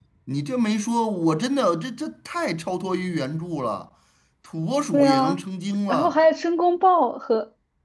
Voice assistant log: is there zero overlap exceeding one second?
Yes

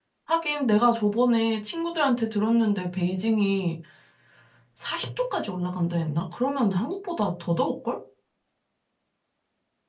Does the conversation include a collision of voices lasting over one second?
No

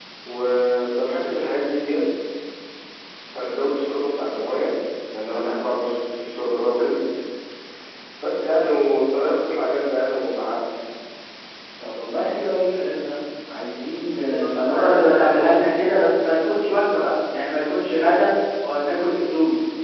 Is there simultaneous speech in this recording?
Yes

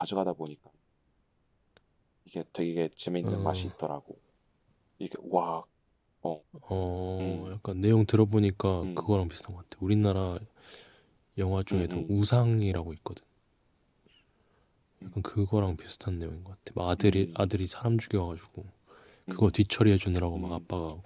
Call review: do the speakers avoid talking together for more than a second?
Yes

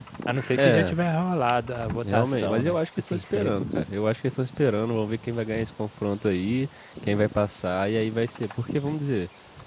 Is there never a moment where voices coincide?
No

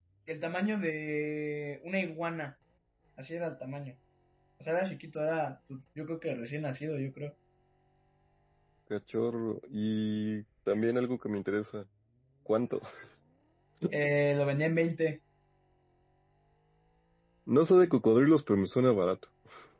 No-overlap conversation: Yes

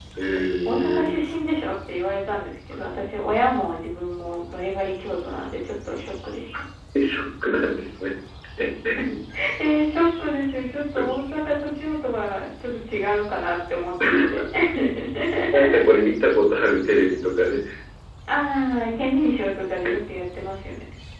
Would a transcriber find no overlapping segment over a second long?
Yes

